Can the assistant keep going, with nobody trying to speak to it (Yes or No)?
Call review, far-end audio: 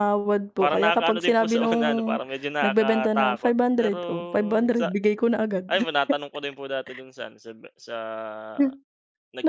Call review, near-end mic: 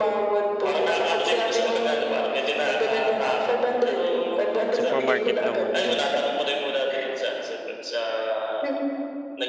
No